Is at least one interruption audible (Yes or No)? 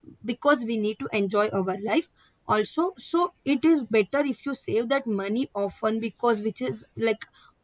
No